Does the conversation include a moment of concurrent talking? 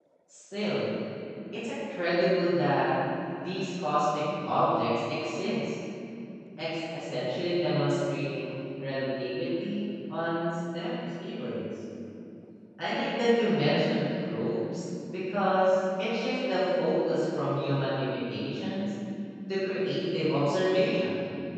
No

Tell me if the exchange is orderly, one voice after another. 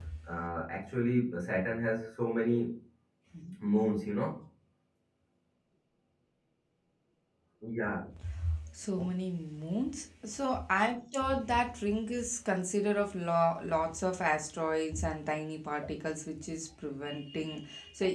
Yes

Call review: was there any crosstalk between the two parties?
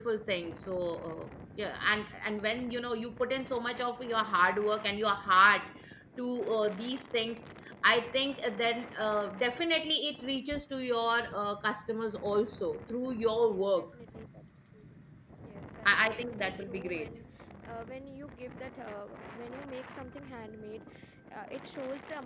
Yes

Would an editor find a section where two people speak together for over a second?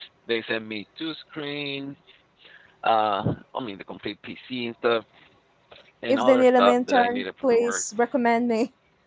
Yes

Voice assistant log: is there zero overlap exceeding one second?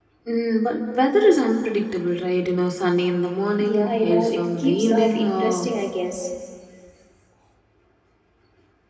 No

